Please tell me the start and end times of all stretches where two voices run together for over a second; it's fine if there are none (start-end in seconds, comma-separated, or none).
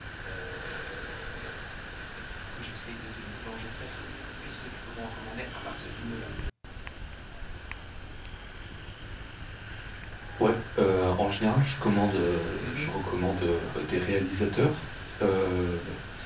none